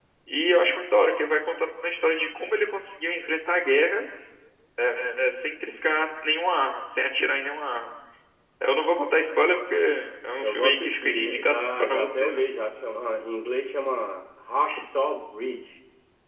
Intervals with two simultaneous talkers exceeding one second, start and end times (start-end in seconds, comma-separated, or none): 10.4-12.4